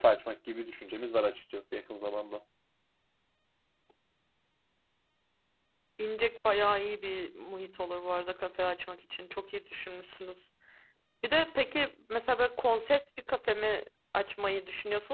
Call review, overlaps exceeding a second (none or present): none